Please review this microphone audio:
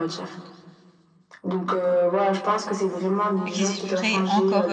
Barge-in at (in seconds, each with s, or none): 3.5 s